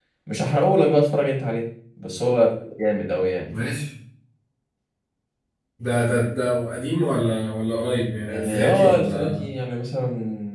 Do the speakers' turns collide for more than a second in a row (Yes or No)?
Yes